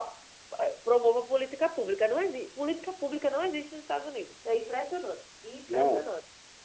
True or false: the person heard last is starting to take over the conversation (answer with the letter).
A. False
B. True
B